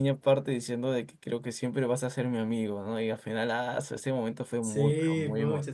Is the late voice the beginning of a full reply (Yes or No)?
Yes